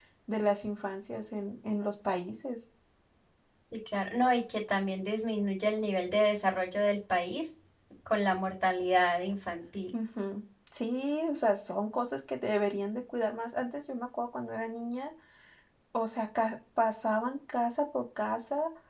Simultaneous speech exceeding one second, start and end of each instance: none

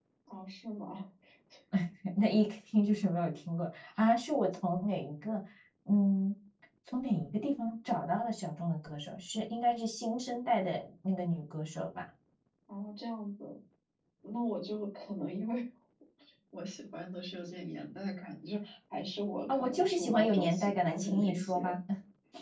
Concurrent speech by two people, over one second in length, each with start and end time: 19.5-21.8

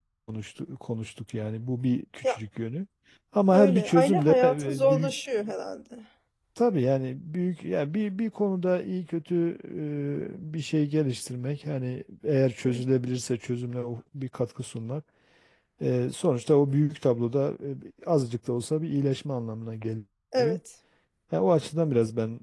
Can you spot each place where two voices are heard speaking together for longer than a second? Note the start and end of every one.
3.5-5.1

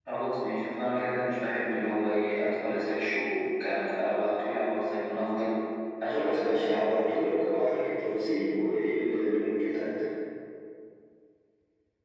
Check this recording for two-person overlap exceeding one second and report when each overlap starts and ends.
6.0-7.3

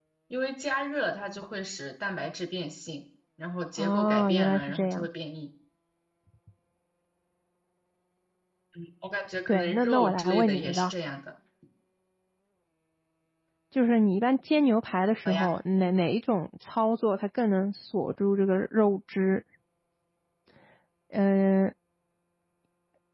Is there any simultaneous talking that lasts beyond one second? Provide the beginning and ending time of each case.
3.8-5.1, 9.5-10.9

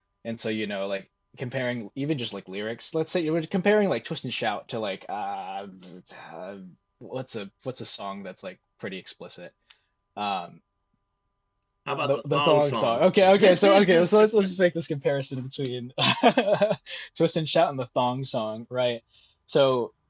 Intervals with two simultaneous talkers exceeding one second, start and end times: 12.0-14.1

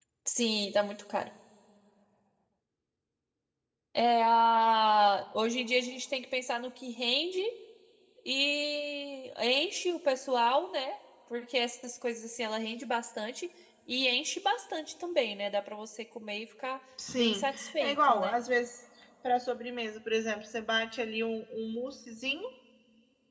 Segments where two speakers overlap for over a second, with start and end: 17.2-18.4

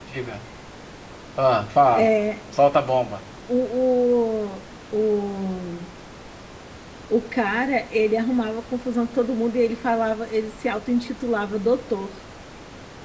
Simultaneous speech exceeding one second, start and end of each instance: none

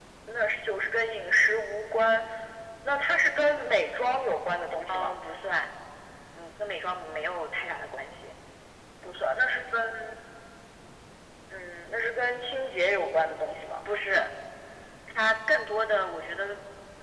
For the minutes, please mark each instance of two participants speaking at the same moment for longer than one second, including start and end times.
none

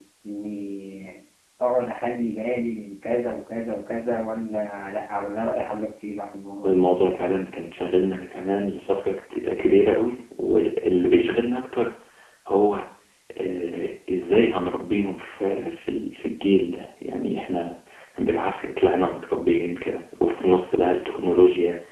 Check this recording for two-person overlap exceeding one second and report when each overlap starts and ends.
none

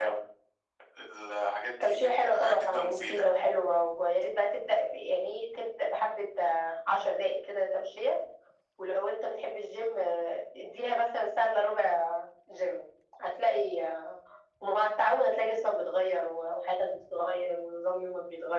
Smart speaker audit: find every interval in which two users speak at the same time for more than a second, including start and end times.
1.8-3.3

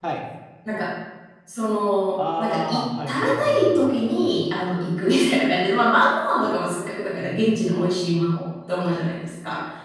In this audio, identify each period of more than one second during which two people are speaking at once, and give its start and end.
2.1-4.4

